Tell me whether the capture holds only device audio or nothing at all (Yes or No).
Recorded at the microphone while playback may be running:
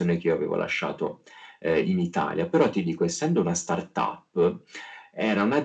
Yes